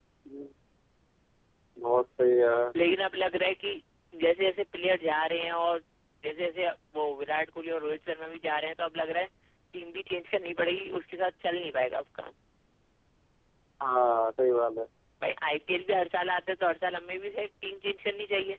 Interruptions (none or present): none